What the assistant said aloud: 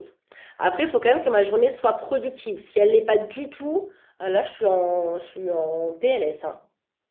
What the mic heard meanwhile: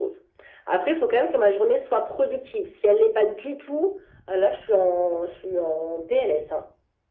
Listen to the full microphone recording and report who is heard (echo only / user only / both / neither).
echo only